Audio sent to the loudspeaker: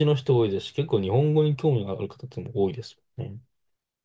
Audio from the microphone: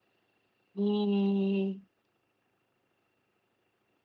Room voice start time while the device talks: 0.7 s

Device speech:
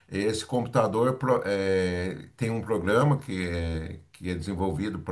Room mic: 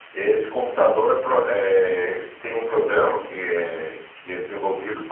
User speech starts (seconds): none

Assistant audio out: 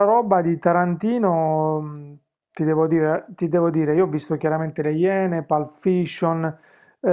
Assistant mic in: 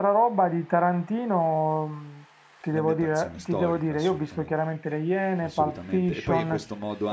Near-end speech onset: 2.7 s

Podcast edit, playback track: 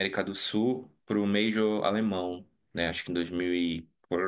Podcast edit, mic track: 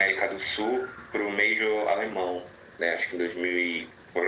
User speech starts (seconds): none

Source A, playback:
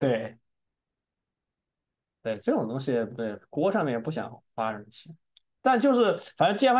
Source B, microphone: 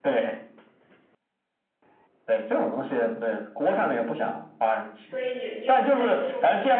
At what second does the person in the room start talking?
5.0 s

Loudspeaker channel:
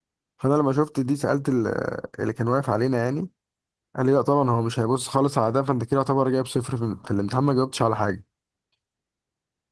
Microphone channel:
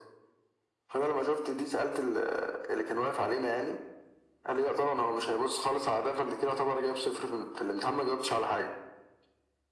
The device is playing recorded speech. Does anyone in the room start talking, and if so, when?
none

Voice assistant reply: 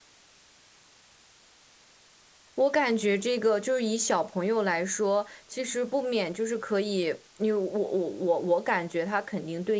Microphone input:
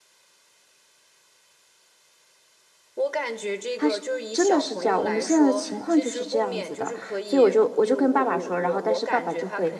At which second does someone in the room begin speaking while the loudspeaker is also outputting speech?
3.8 s

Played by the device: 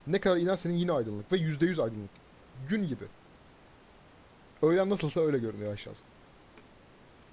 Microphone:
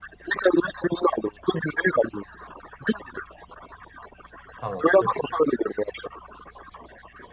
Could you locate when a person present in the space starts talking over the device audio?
4.6 s

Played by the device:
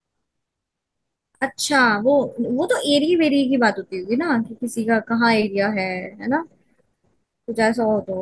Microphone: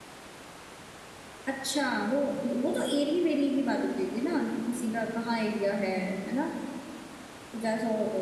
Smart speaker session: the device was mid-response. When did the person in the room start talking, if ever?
none

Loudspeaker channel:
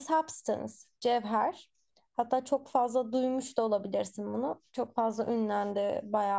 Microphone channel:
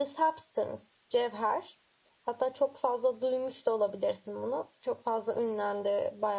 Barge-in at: none

